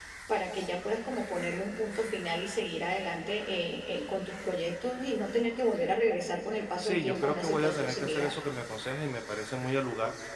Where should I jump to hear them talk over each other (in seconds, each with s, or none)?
6.8 s